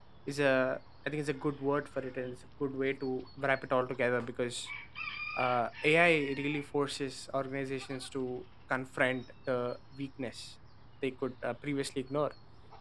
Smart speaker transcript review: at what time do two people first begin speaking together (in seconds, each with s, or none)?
none